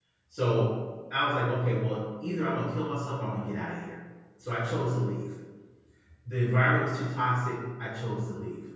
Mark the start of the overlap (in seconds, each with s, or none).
none